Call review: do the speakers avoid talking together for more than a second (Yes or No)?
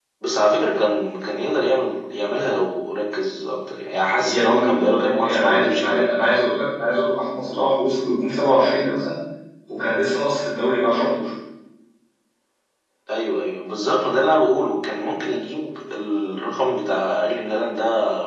No